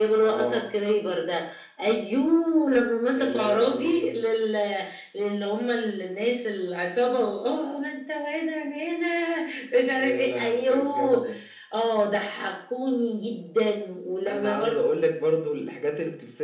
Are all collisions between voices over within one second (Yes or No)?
No